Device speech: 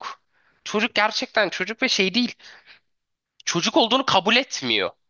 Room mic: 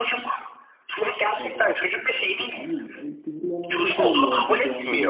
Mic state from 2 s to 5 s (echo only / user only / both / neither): both